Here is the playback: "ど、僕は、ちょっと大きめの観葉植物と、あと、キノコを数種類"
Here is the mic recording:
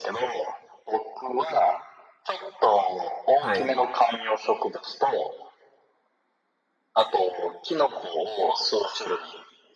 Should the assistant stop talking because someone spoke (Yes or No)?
Yes